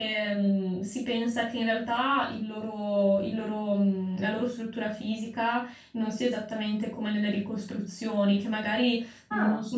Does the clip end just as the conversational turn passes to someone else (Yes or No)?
No